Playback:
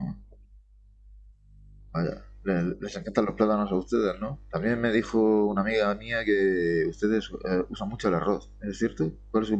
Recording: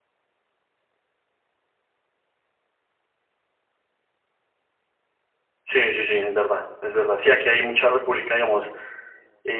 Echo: none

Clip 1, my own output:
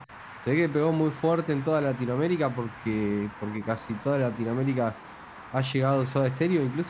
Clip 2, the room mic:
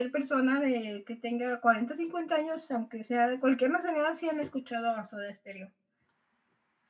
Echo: none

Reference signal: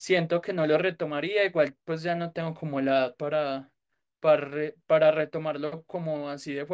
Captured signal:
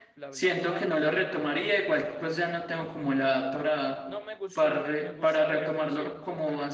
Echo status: present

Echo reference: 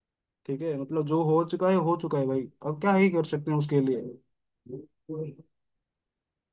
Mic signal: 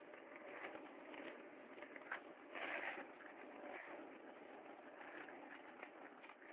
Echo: none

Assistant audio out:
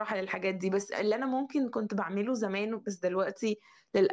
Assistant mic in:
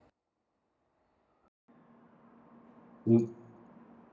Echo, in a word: none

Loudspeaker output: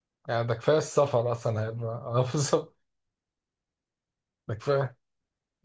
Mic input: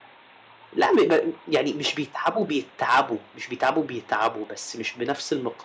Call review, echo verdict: none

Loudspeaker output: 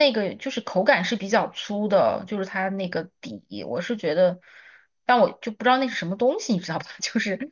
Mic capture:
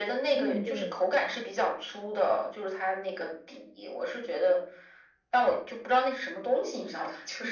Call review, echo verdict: present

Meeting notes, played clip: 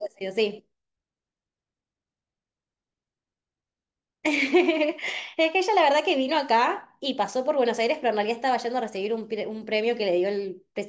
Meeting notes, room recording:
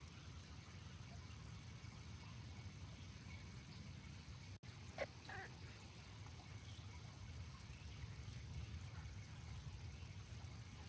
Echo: none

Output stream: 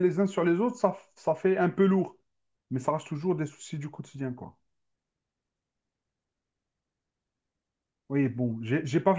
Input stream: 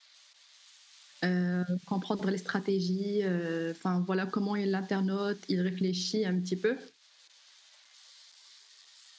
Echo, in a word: none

